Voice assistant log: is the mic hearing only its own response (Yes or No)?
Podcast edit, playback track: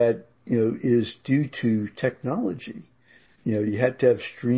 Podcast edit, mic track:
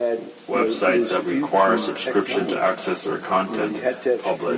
No